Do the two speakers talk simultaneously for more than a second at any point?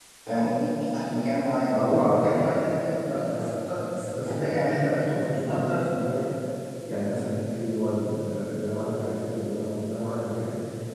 Yes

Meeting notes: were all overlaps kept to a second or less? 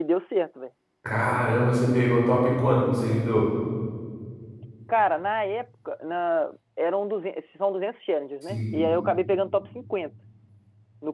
Yes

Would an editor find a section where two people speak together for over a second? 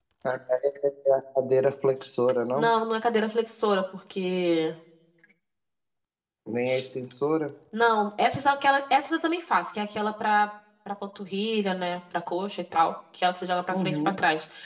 No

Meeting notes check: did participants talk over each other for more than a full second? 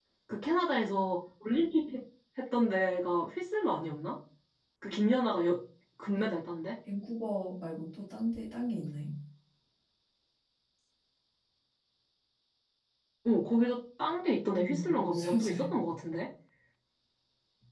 Yes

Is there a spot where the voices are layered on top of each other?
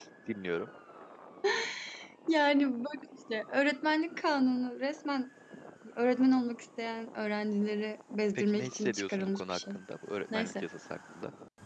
Yes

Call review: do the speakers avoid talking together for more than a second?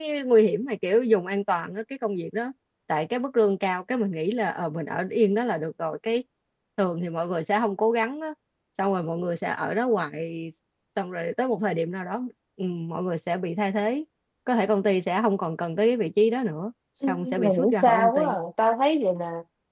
No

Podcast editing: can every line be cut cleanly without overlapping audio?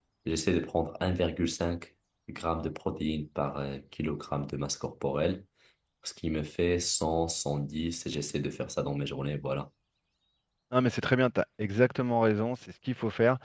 Yes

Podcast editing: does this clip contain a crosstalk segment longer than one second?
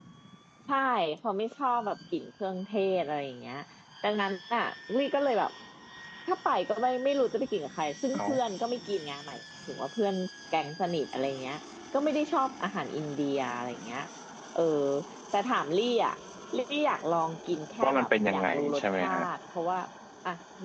Yes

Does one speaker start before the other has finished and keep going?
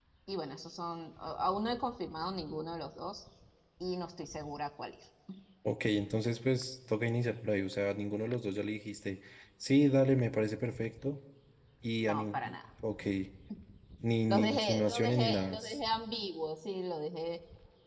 Yes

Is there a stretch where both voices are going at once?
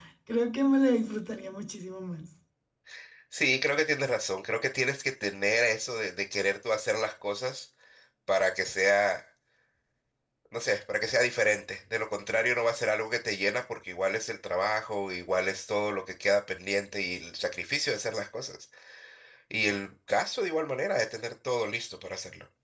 No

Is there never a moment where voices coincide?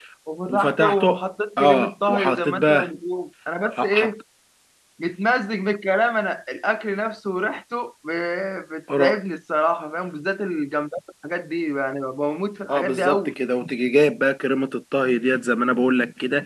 No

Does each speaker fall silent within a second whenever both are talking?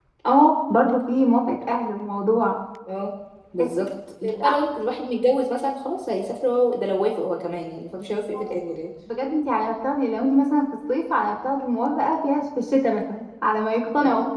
Yes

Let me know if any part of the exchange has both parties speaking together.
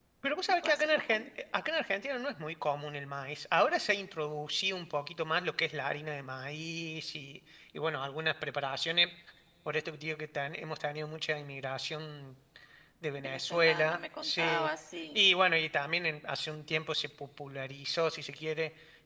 Yes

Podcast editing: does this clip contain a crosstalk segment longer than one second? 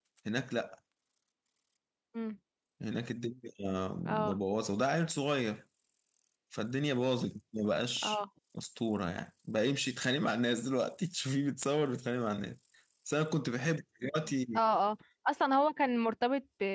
No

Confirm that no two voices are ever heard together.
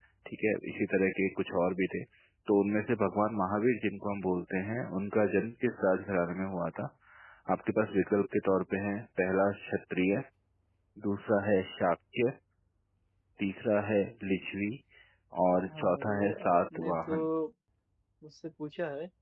No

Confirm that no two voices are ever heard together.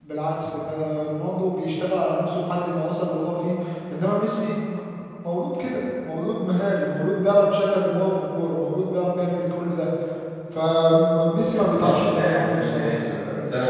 No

